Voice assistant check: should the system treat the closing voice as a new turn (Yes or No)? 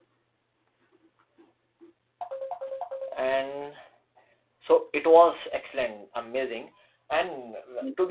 No